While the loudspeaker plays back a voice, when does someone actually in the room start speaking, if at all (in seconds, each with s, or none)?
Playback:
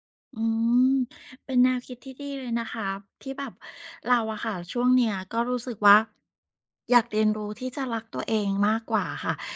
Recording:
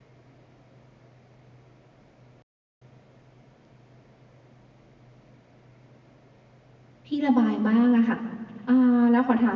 7.0 s